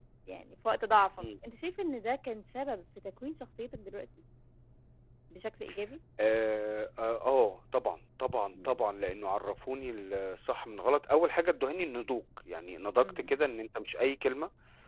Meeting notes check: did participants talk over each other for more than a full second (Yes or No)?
No